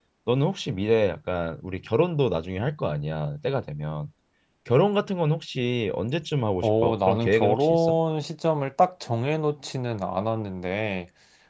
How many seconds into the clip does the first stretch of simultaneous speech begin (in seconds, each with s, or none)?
6.6 s